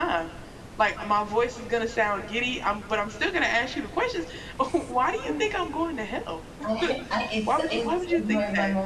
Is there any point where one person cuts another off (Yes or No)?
Yes